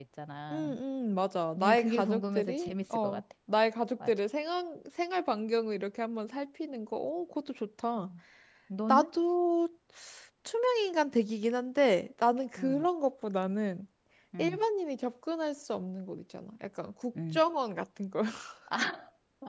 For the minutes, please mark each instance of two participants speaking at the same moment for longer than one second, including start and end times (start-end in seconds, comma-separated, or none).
1.6-3.2